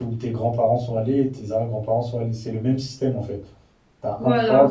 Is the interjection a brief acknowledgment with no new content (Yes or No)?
Yes